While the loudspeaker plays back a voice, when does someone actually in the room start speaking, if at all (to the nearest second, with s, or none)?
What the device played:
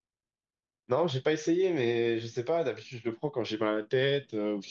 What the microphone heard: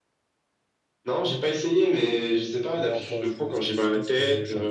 3 s